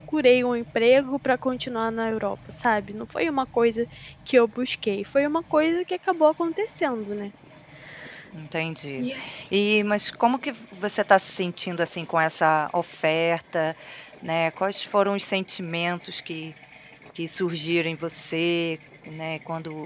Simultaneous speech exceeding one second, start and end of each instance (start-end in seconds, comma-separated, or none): none